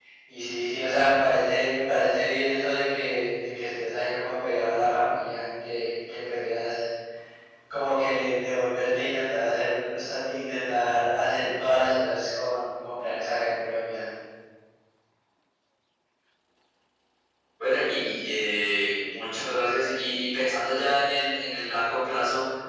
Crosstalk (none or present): none